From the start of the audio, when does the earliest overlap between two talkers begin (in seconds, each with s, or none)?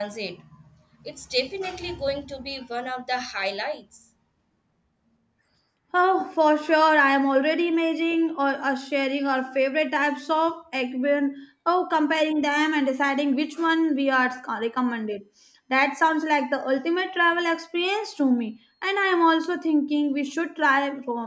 none